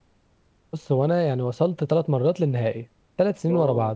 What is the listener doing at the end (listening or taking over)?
listening